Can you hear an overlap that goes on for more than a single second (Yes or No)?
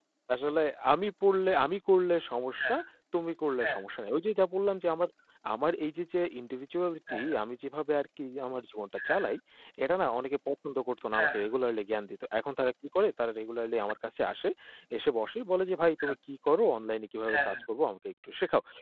No